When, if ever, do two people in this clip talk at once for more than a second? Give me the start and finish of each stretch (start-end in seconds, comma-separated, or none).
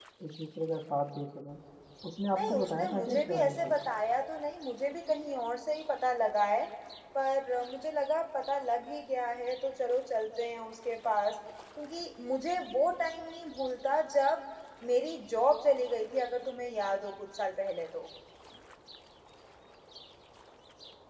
2.3-3.7